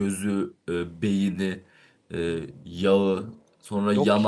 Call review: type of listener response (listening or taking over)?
listening